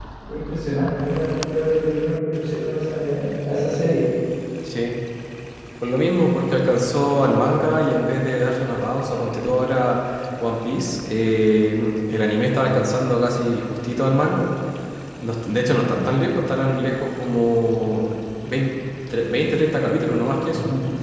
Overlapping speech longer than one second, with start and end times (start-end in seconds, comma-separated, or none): none